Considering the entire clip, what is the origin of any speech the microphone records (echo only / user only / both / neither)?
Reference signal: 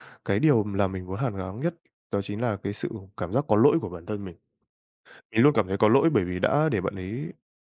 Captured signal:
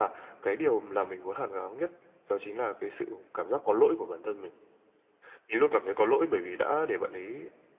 echo only